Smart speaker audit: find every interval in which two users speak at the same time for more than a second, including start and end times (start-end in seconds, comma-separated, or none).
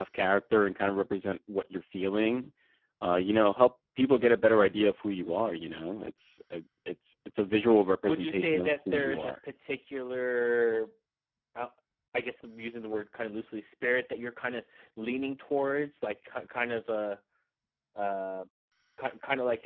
8.1-9.3